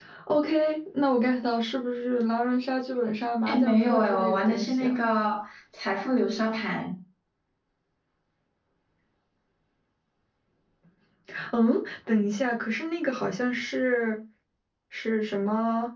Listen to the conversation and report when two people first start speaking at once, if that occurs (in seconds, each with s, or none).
3.5 s